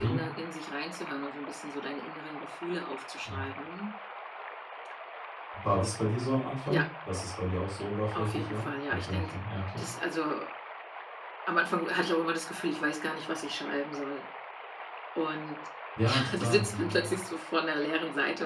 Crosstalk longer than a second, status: present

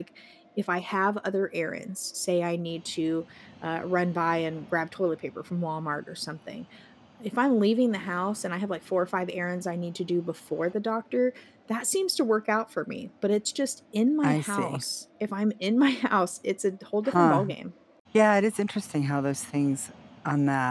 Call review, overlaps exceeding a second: none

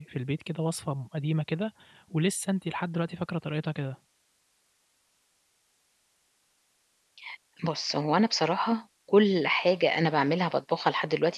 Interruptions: none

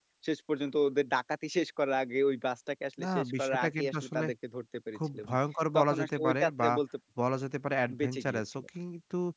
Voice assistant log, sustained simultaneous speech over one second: present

